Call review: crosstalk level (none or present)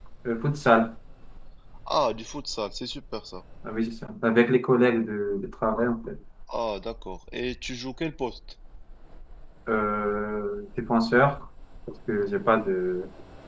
none